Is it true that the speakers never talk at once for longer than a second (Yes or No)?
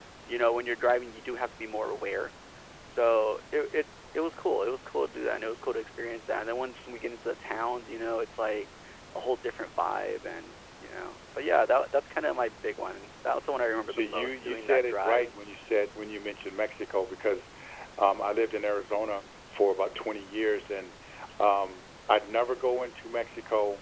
No